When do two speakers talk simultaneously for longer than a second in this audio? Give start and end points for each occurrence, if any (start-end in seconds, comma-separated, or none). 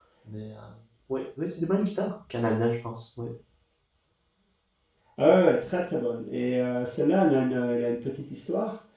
none